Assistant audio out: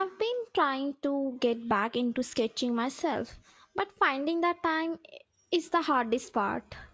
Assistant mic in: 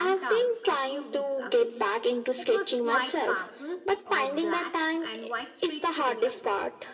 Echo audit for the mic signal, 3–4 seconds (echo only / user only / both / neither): both